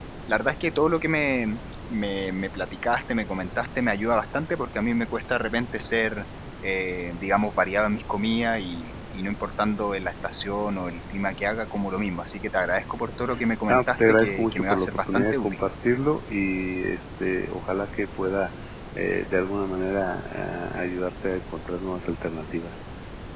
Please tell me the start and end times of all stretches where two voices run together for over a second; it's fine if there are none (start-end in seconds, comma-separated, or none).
13.7-15.6